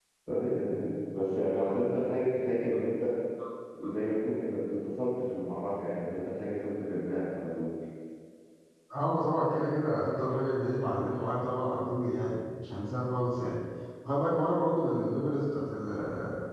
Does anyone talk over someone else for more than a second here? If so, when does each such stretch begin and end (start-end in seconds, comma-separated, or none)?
none